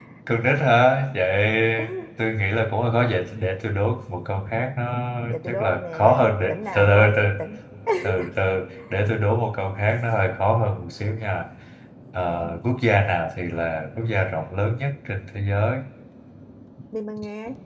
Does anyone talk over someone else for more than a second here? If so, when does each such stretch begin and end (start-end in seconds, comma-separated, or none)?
5.3-7.1